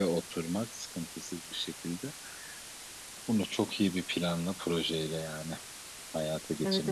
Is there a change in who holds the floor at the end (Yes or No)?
Yes